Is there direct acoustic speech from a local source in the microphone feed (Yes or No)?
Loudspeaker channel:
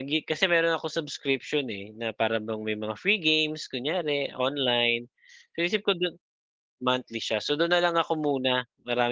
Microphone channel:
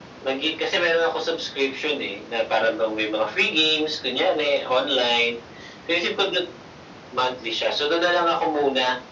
No